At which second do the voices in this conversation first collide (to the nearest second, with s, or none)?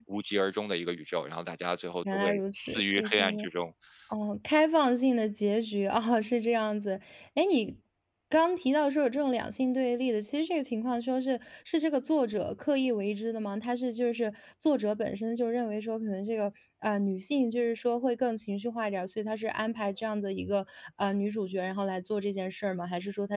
2 s